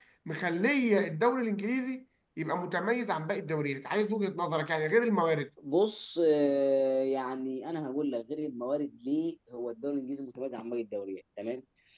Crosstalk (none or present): none